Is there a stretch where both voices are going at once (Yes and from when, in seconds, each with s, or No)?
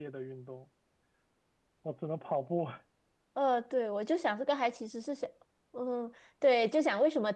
No